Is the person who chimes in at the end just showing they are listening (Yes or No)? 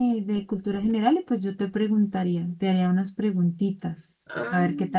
No